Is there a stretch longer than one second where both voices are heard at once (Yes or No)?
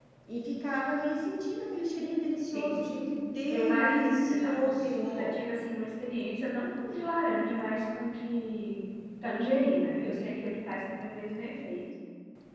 Yes